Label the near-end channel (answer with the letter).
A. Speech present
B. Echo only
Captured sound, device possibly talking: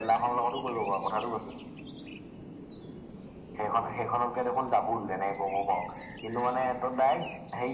B